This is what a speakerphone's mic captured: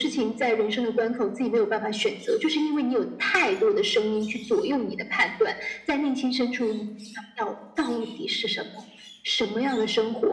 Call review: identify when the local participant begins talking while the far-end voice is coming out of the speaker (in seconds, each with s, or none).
none